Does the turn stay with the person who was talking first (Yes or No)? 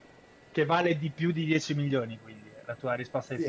No